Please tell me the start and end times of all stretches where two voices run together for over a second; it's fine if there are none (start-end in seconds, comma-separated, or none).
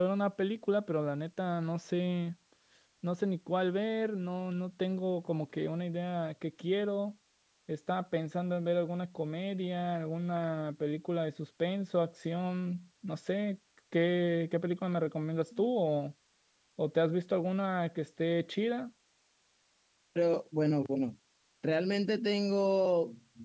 none